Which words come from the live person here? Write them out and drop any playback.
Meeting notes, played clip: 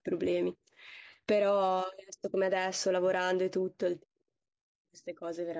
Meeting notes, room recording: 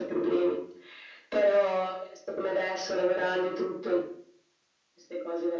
none

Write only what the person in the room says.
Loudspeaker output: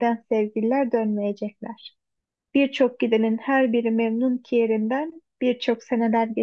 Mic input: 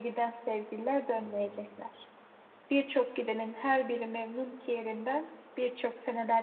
Hmm,

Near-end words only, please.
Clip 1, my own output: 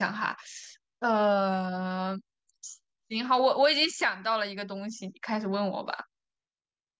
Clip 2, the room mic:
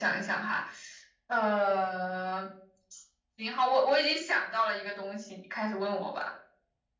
none

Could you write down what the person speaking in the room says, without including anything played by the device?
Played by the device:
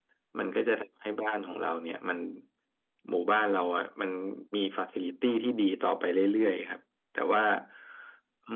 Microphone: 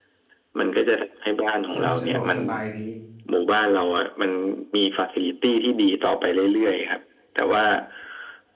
สะสะดวกสบายดี

